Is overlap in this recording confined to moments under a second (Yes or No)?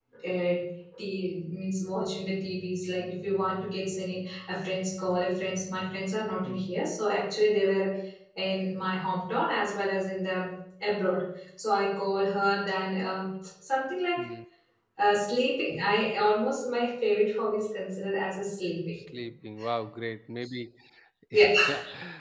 Yes